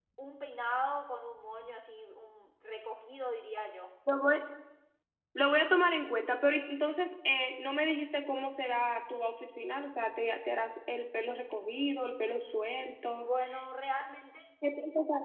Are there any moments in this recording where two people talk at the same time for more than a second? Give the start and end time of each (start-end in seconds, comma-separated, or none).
none